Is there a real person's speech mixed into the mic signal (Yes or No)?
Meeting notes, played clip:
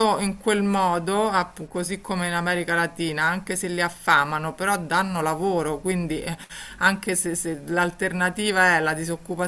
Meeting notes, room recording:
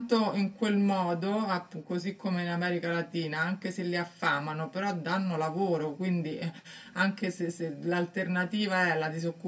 No